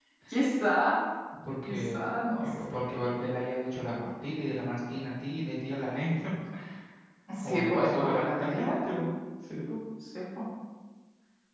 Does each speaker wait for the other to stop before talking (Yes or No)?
No